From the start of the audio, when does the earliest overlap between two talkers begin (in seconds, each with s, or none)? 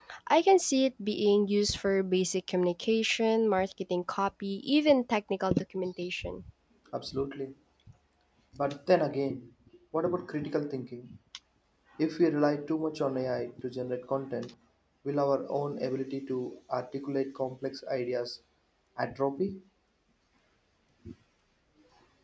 none